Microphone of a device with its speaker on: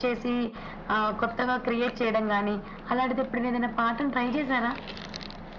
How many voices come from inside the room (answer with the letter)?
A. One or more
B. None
B